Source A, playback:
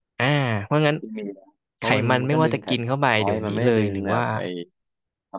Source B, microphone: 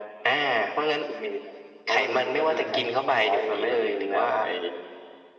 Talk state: both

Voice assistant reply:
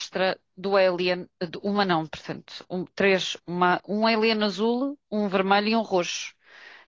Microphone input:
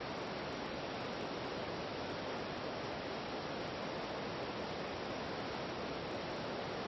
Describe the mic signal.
neither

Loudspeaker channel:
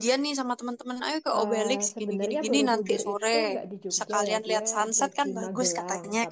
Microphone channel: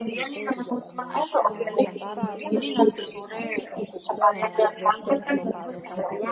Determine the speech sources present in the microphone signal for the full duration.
both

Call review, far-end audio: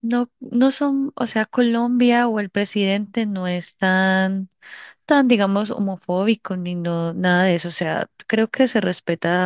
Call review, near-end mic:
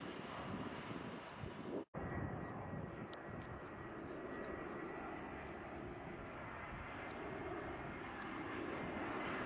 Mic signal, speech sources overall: neither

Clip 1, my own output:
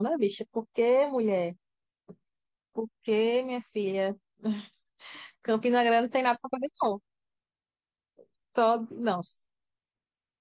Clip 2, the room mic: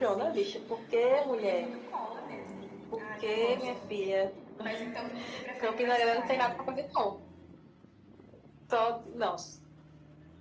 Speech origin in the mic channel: both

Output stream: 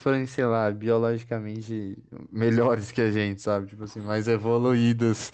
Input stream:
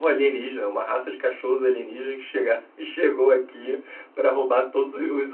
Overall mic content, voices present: user only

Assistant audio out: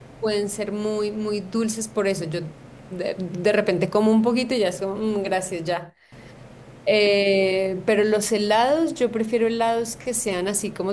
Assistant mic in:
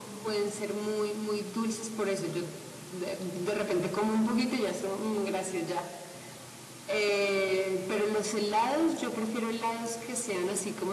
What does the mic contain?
echo only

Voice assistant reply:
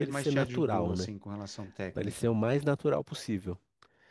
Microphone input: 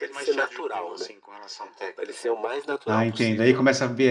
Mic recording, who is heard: both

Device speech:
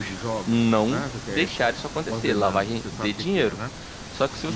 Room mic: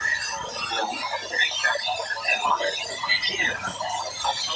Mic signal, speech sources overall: echo only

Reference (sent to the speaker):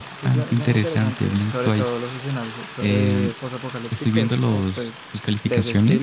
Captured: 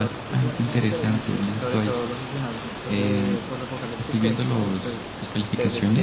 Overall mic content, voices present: echo only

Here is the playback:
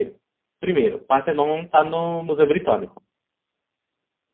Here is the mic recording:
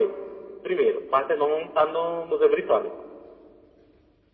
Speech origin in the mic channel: echo only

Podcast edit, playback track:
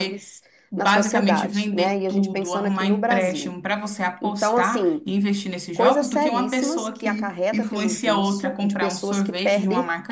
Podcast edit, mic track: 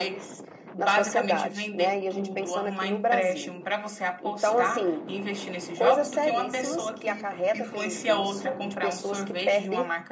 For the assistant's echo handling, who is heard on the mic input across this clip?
echo only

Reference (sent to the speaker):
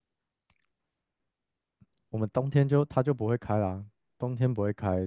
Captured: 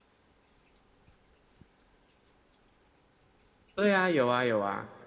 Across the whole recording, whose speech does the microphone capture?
user only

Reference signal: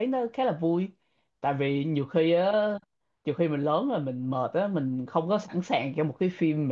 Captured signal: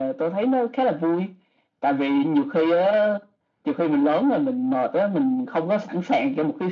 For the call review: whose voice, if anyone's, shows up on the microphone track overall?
echo only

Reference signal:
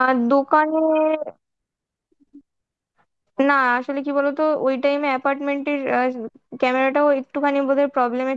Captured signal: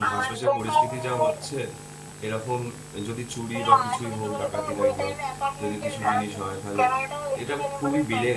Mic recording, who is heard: both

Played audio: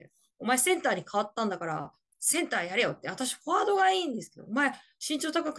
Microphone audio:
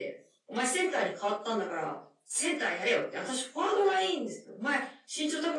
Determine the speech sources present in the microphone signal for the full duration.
echo only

